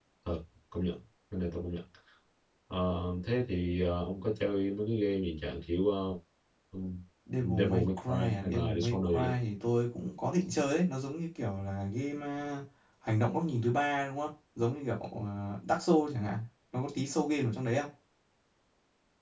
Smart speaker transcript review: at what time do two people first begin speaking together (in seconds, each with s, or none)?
7.5 s